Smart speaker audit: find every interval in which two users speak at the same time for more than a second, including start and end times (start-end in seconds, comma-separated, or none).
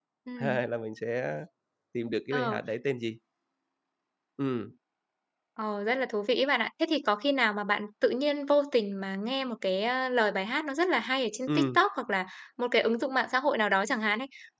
none